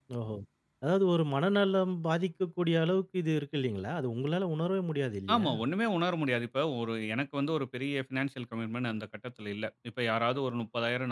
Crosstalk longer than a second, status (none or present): none